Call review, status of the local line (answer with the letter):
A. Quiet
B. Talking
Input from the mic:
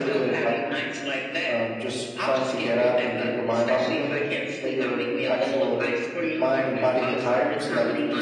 A